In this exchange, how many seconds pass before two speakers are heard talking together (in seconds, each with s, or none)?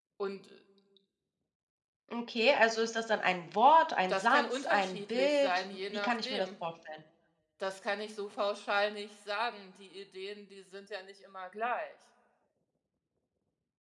4.1 s